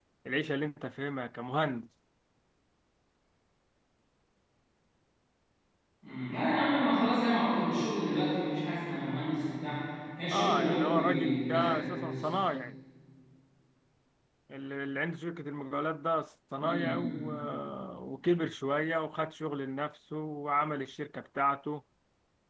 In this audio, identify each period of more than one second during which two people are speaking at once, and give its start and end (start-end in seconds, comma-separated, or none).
10.3-12.3